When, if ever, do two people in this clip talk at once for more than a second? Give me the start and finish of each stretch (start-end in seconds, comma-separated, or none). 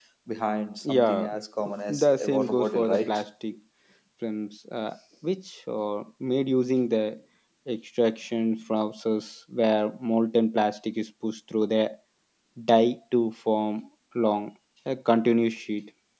1.9-3.2